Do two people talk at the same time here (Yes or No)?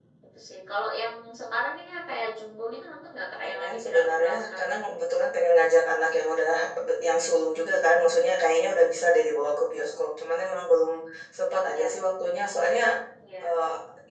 Yes